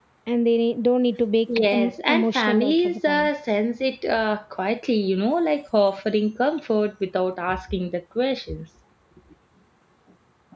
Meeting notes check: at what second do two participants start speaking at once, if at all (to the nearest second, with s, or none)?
2 s